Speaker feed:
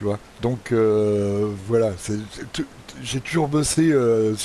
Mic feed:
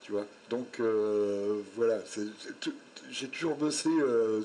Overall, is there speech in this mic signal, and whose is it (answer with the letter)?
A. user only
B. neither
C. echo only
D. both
C